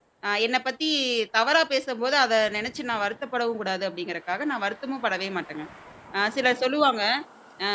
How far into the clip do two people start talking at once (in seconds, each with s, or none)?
none